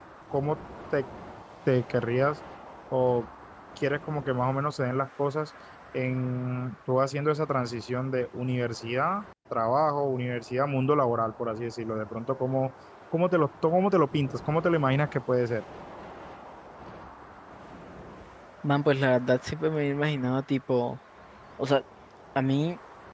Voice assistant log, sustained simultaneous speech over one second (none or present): none